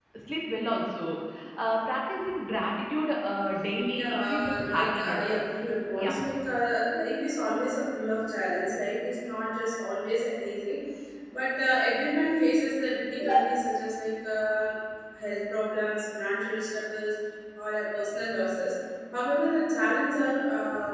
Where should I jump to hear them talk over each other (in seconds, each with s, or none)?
3.9 s